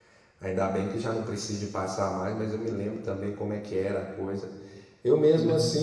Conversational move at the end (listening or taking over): listening